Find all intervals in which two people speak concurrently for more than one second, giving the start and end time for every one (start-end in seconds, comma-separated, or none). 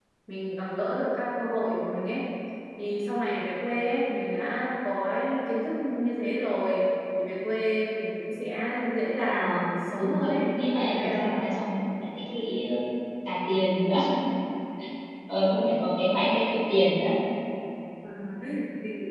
10.0-11.3